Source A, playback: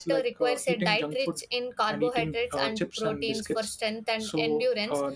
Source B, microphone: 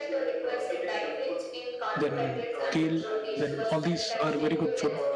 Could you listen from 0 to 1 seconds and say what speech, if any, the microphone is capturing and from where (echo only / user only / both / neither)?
echo only